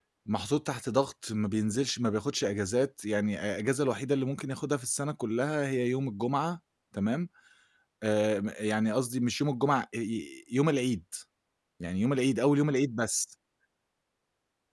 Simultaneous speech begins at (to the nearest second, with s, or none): none